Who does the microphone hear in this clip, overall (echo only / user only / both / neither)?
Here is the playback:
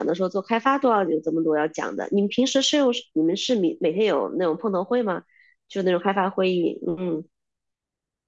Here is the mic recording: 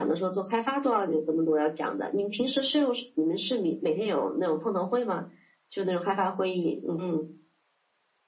echo only